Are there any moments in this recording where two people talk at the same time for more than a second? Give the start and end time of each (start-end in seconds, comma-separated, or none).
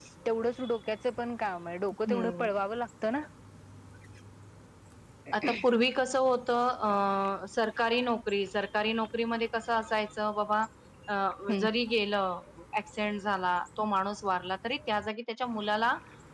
none